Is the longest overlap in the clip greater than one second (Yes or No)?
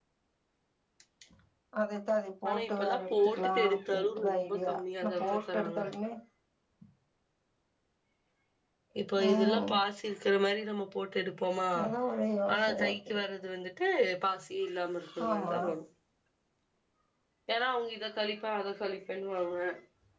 Yes